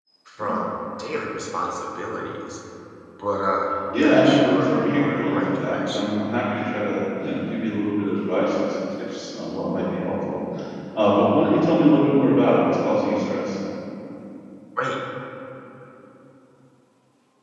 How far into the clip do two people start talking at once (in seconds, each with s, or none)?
4.0 s